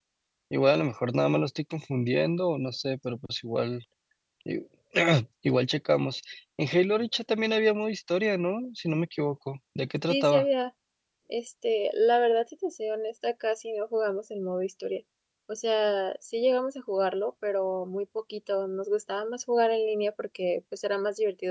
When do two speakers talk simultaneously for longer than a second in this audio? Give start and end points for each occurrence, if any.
none

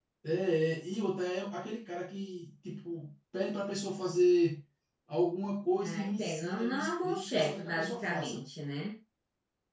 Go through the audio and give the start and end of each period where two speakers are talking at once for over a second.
5.8-8.4

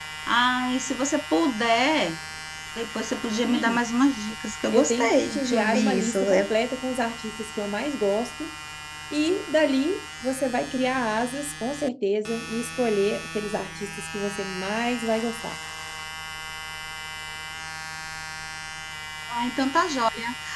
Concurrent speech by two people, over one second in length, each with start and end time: 4.7-6.5

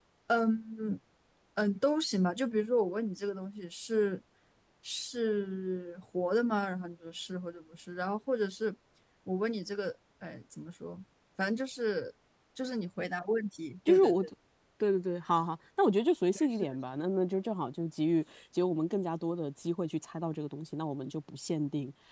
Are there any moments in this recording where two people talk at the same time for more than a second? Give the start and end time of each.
none

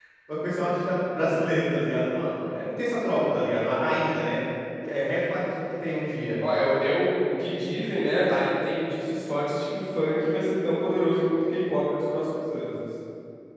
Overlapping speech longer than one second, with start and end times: none

